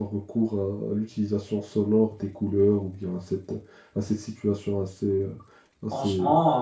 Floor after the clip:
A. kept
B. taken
B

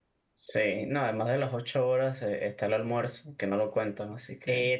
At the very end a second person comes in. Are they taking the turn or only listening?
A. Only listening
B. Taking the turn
B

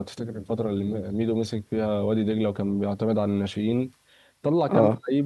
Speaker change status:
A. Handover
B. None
B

